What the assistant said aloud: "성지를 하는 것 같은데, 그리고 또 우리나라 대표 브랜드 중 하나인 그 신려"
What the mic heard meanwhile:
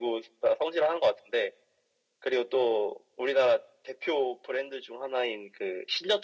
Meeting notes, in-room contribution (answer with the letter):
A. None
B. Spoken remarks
A